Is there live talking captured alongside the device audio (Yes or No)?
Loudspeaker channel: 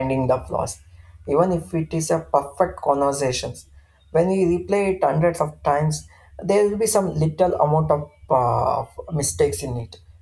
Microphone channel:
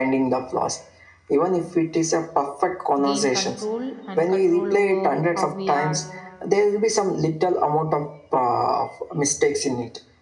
Yes